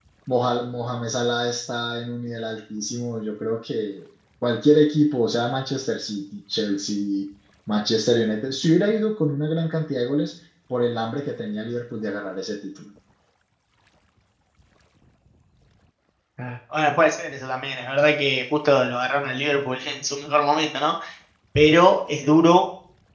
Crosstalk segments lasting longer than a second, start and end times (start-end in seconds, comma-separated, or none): none